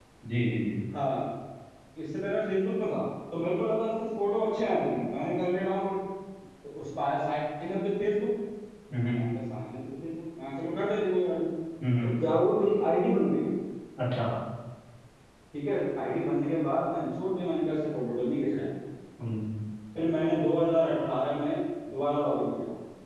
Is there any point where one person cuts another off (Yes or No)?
No